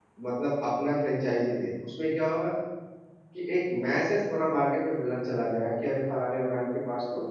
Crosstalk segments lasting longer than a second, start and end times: none

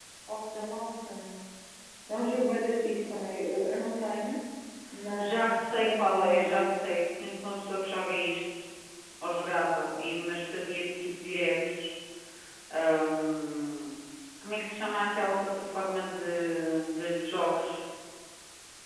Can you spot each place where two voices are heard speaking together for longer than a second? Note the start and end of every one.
5.2-6.8

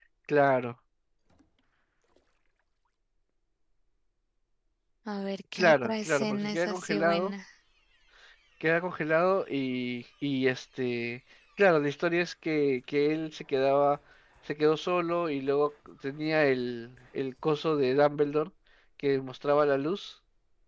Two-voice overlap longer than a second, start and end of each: 5.6-7.3

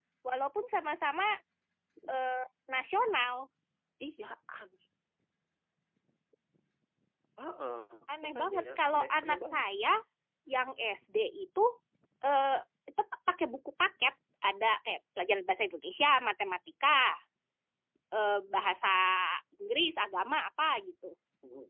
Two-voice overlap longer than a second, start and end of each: 8.3-9.6

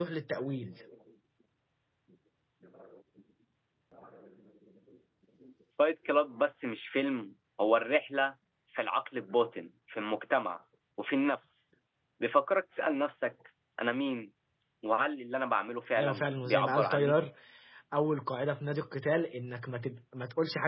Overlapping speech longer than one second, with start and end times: 16.0-17.2

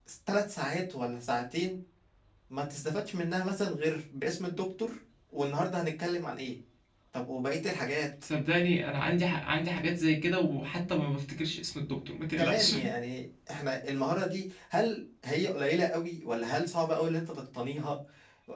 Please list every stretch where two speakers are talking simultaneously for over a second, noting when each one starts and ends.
none

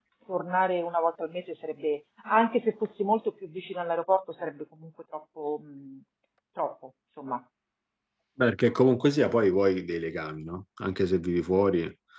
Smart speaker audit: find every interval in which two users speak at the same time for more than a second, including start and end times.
none

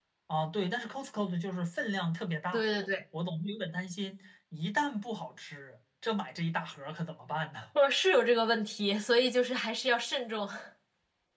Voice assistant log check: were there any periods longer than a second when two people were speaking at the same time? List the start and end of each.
none

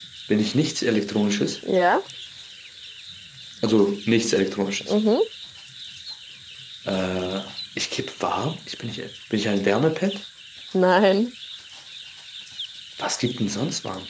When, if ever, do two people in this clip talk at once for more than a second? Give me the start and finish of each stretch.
none

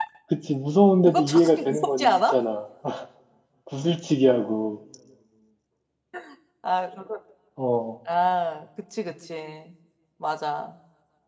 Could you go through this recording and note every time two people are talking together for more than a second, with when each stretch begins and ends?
1.1-2.4

